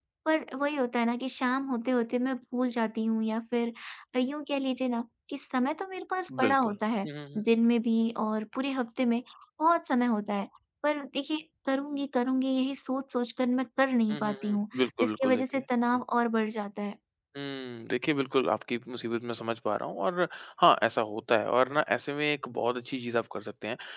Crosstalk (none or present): present